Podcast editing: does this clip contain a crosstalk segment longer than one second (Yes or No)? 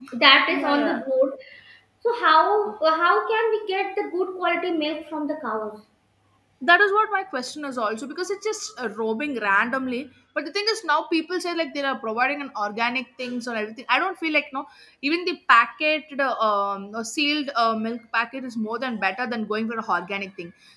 No